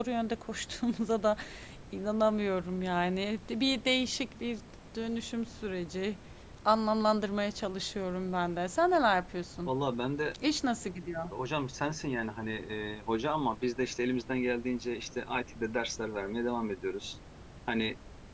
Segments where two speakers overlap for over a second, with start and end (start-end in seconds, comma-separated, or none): none